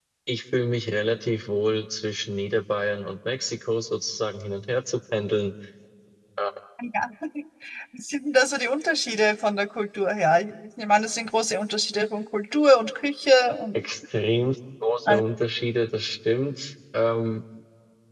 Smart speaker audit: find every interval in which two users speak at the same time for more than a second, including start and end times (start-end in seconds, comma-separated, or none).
none